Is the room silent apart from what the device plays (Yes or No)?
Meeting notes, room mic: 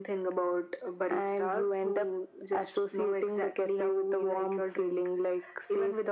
Yes